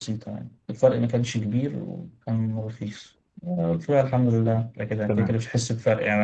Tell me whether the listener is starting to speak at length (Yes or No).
No